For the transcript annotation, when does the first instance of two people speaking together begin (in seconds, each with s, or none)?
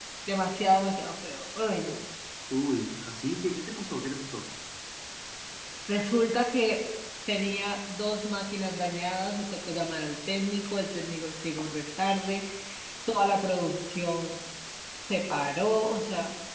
none